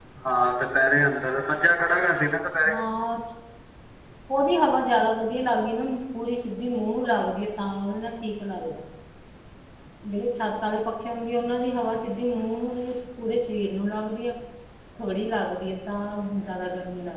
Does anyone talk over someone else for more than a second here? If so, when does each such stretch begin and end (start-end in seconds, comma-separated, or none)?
none